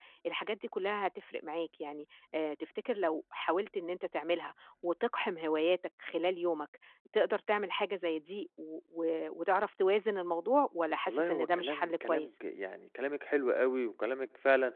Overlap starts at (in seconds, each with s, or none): 11.1 s